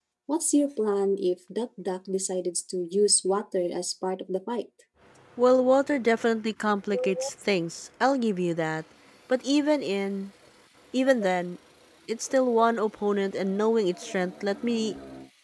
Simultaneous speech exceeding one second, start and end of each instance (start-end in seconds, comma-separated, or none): none